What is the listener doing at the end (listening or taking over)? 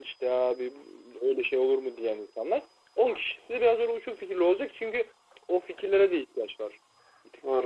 taking over